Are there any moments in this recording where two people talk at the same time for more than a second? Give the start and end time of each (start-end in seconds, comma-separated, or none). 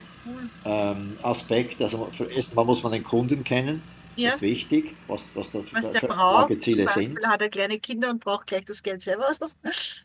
5.8-7.2